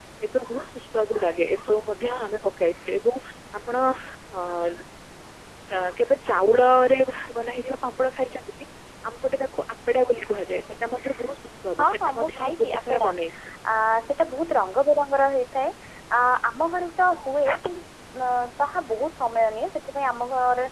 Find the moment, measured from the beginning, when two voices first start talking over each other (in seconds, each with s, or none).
11.8 s